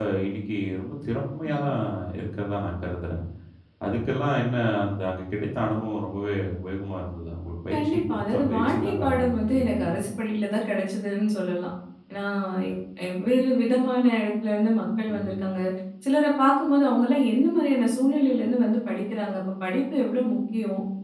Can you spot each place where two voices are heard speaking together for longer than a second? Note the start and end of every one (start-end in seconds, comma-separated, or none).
7.7-9.8